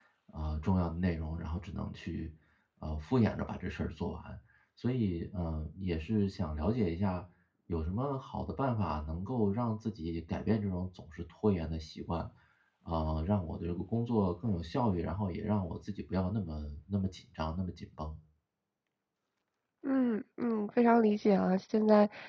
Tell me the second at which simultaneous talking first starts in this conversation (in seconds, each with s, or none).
none